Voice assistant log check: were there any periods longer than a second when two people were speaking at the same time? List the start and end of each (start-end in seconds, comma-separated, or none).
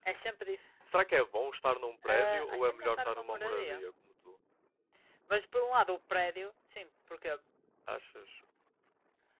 2.1-3.8